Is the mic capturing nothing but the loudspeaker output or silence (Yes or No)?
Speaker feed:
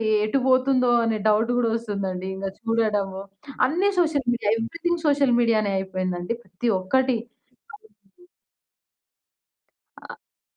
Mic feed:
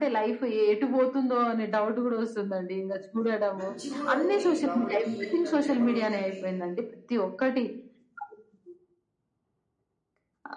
No